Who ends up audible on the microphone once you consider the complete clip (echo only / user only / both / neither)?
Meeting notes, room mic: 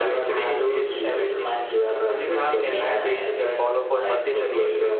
both